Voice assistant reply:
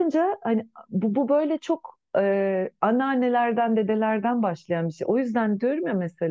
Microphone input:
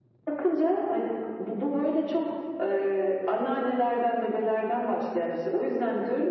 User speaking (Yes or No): No